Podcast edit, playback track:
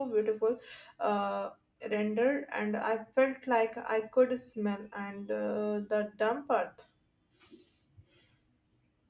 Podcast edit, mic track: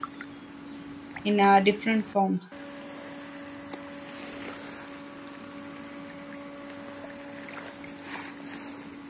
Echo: none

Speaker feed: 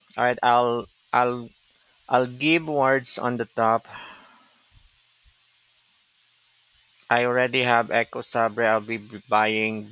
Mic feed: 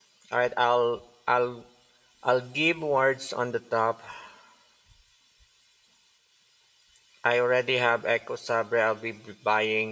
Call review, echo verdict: present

